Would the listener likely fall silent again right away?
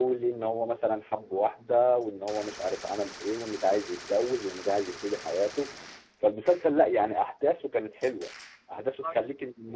Yes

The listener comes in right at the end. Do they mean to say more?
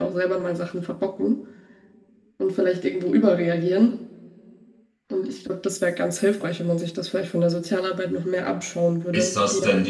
Yes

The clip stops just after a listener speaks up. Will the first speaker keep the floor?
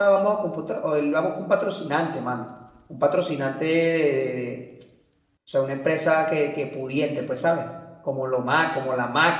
Yes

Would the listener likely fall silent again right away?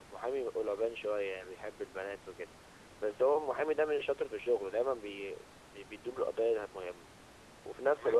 Yes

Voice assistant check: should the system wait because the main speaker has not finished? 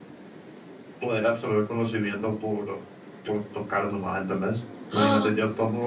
Yes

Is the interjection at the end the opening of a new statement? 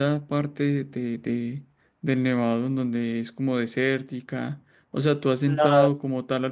No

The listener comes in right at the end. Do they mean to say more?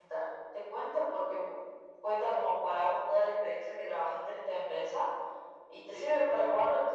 No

